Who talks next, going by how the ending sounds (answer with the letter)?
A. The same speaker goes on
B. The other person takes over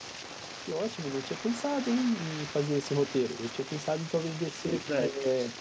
A